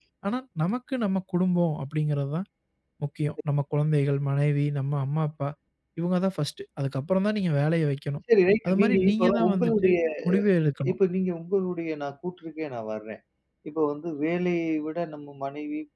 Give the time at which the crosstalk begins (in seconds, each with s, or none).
8.7 s